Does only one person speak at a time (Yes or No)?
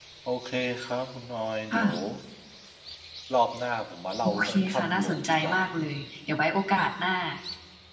No